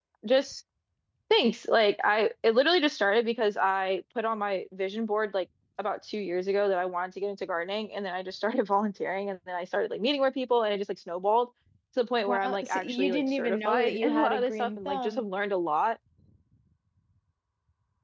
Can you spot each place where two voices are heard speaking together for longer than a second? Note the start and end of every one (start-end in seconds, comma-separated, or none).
12.3-15.3